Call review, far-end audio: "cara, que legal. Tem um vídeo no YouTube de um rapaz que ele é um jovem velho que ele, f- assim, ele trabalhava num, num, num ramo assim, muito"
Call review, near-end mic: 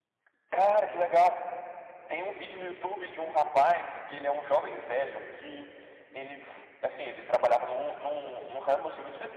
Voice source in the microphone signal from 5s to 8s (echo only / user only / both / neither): echo only